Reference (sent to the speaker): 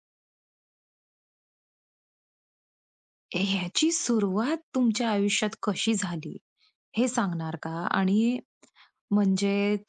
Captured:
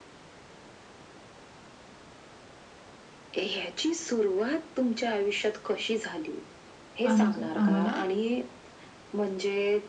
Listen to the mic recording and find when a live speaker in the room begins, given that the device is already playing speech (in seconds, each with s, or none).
7.1 s